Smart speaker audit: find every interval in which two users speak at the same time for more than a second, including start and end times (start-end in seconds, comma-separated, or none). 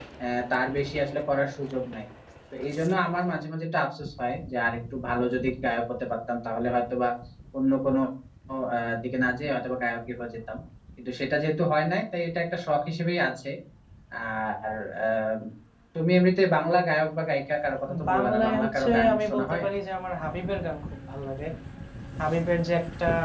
18.1-19.6